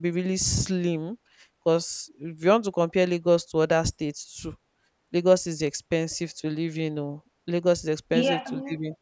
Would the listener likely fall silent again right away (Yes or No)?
No